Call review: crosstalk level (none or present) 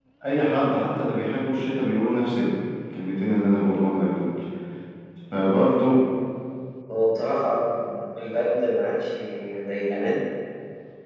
none